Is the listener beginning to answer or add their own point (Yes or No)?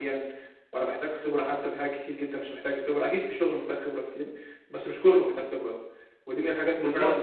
No